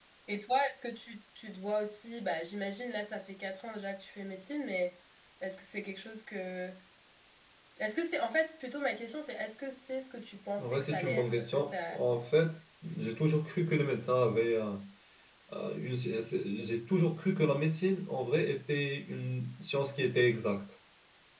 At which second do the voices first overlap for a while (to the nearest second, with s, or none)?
11 s